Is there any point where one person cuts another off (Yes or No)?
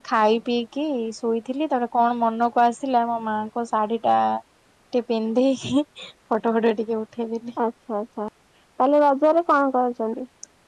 No